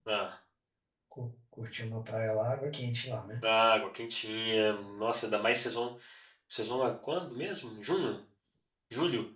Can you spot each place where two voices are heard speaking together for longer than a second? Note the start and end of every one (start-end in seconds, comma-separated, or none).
none